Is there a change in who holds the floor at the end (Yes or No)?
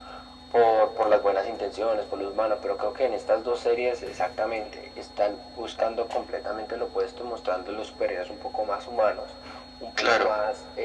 No